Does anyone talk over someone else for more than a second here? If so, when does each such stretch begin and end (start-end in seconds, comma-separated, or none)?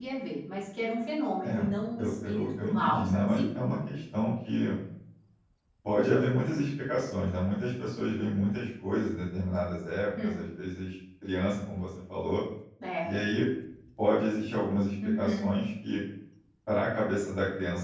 2.0-3.4